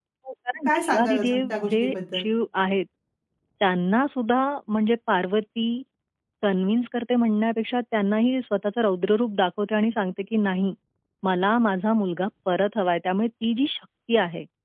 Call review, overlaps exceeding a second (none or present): present